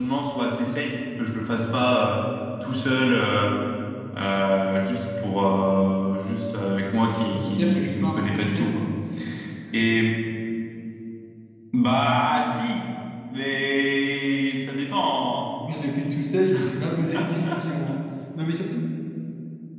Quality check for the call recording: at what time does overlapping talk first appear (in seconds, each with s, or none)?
7.2 s